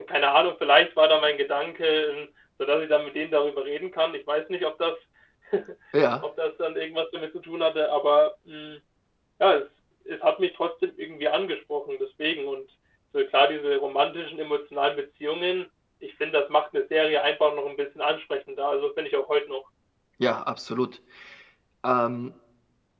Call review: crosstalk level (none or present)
none